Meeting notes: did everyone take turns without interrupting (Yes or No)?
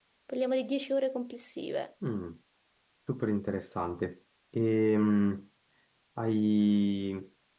Yes